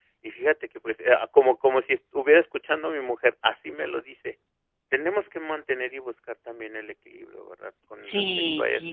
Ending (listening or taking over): taking over